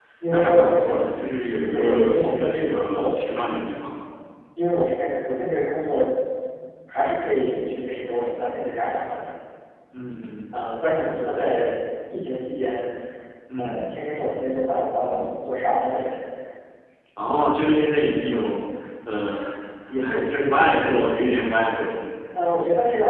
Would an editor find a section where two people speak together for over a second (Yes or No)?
Yes